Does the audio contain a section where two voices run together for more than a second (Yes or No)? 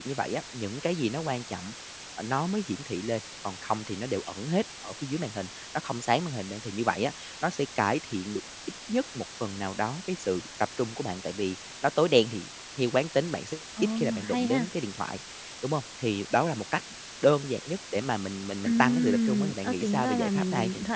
Yes